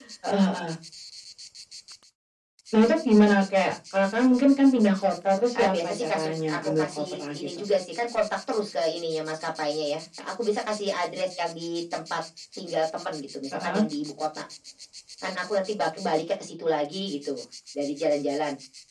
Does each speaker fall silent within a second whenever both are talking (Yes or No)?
No